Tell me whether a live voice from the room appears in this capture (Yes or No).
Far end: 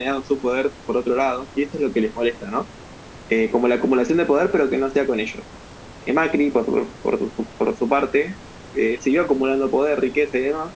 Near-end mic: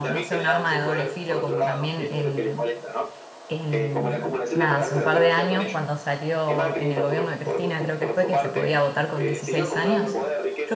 Yes